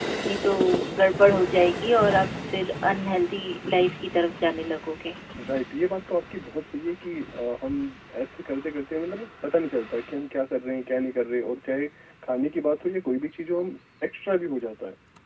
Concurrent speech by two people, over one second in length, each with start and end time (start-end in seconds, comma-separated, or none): none